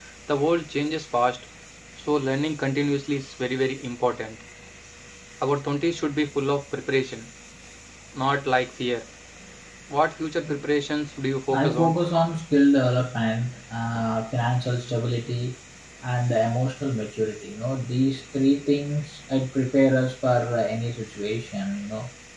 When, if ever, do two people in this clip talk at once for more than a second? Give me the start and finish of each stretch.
none

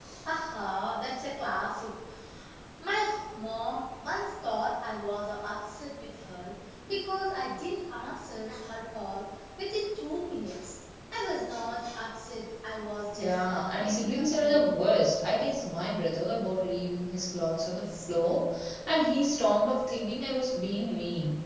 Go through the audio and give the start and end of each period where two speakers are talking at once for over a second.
13.1-14.7

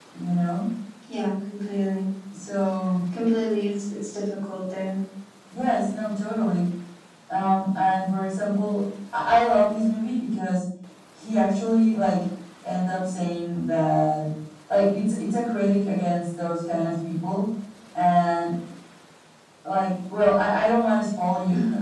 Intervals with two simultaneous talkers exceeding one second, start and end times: none

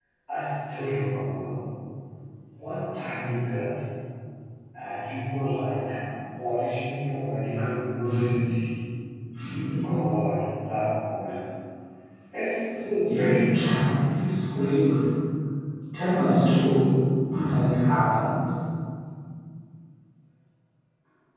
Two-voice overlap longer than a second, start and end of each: 12.9-14.2

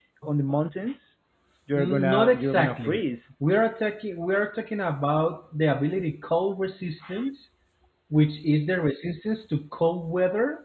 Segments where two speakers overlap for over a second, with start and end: 1.8-3.0

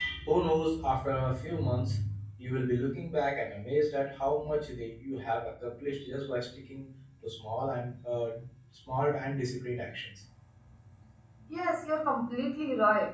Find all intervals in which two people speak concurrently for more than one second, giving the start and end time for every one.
none

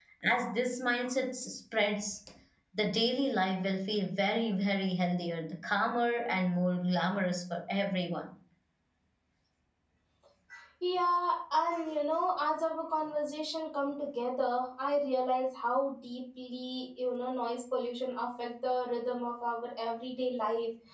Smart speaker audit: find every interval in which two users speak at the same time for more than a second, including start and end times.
none

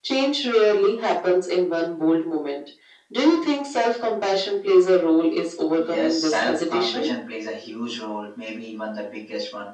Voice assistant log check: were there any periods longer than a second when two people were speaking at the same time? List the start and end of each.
5.9-7.1

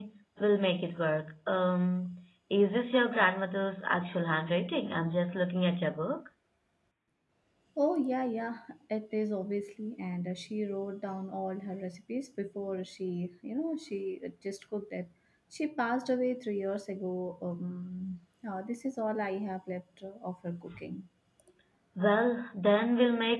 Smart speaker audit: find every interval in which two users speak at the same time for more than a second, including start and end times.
none

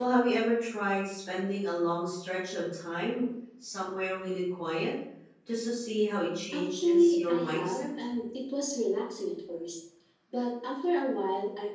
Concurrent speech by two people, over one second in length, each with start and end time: 6.5-7.9

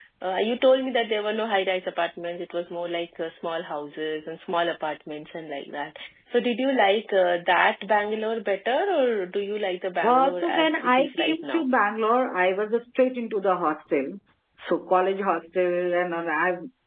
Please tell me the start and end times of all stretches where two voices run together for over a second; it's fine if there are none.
10.1-11.7

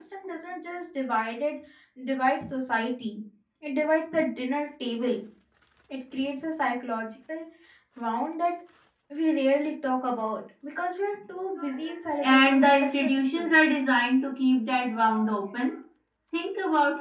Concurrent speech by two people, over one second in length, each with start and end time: 12.2-13.5

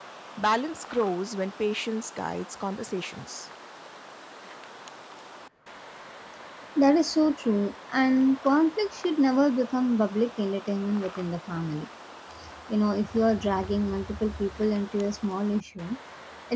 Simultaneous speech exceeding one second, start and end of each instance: none

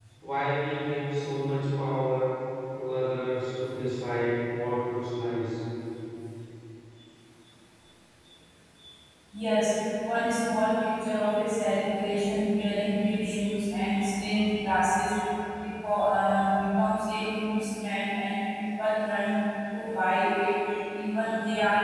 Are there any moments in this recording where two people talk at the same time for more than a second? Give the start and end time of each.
none

